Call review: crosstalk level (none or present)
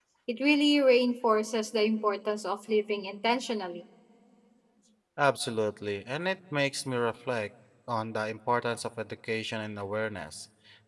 none